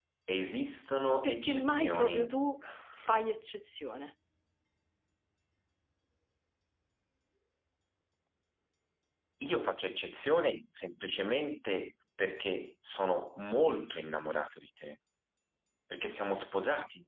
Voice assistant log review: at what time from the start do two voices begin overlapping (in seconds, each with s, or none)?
1.1 s